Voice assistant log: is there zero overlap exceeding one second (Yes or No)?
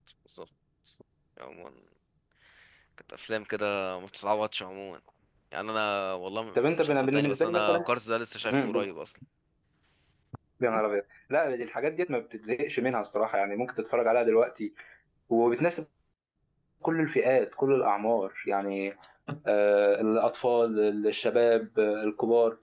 No